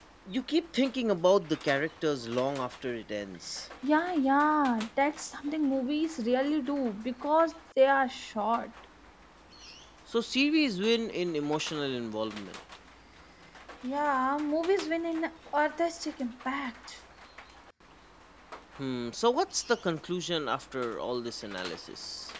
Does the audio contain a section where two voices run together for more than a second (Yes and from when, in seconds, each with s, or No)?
No